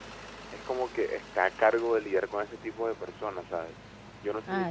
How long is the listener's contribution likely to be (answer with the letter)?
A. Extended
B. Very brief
B